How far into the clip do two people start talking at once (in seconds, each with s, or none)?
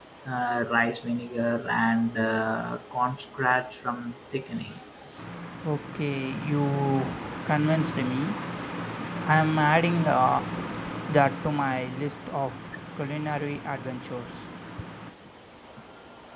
none